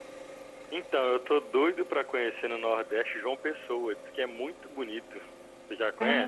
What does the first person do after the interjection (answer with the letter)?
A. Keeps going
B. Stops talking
B